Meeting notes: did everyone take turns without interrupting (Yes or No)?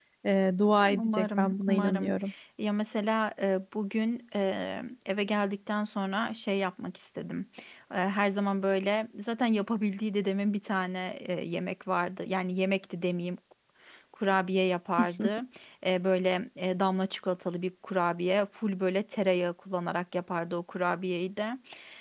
No